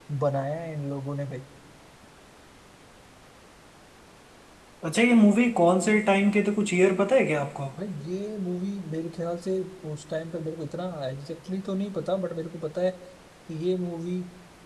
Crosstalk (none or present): none